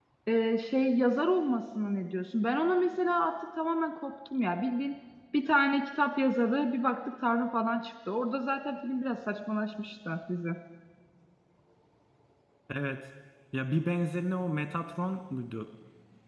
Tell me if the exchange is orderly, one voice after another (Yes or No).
Yes